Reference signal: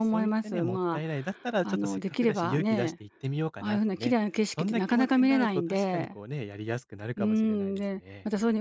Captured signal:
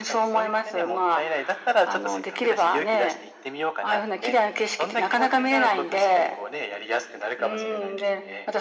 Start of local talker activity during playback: none

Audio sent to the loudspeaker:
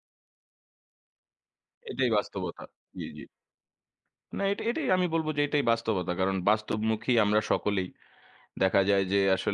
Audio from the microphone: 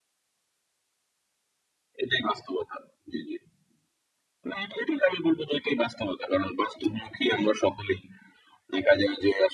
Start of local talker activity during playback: none

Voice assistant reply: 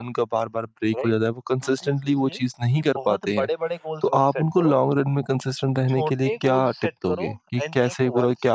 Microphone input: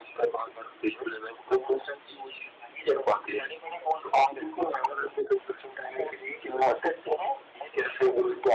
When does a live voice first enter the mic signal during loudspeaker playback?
none

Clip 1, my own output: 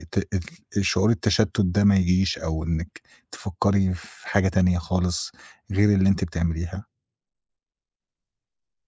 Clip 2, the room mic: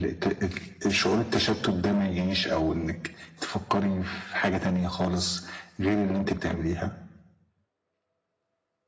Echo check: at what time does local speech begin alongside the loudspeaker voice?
none

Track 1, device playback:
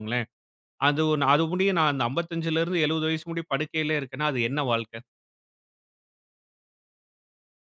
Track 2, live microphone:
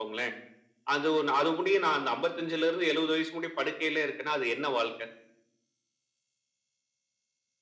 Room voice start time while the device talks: none

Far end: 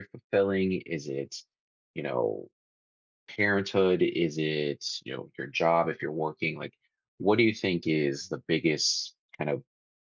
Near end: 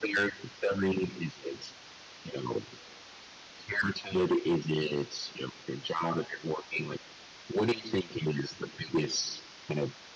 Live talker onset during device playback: none

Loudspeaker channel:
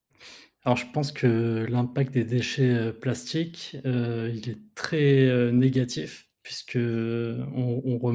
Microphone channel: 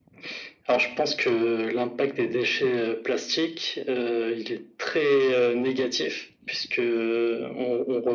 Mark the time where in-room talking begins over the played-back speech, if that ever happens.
none

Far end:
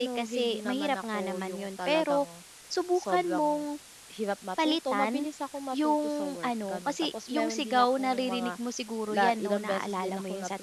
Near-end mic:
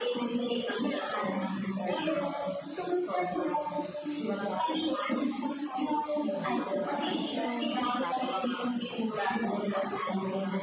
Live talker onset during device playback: 6.2 s

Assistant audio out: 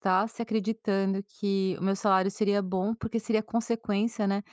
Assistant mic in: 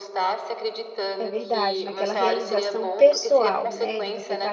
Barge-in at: 1.2 s

